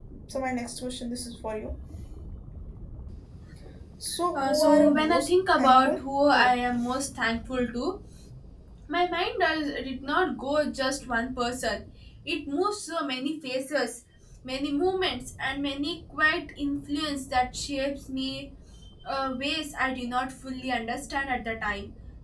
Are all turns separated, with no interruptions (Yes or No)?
No